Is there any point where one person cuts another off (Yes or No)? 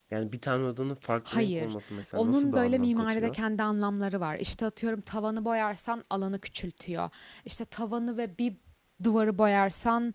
Yes